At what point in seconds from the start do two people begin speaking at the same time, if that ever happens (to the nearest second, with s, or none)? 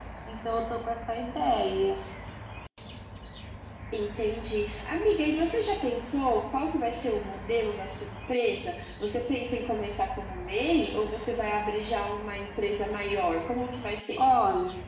none